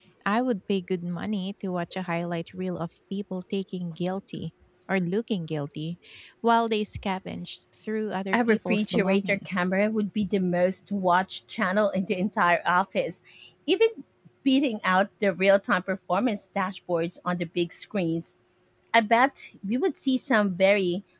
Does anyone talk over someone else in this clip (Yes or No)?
Yes